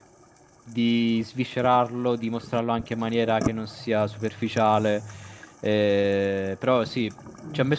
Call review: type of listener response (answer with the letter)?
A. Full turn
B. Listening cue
B